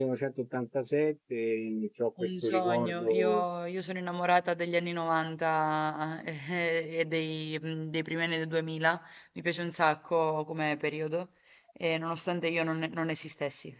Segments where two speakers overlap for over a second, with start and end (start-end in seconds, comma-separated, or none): 2.2-3.4